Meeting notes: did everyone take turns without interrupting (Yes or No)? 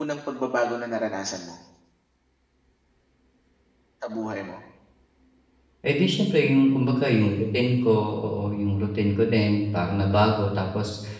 Yes